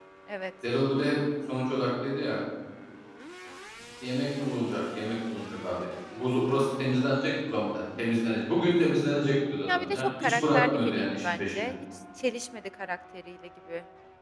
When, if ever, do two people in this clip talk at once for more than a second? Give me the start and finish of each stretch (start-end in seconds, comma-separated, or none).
9.7-11.7